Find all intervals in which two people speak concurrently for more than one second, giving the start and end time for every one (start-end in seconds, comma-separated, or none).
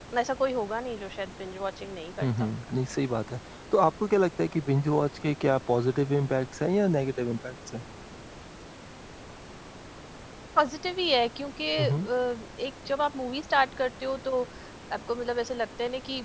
none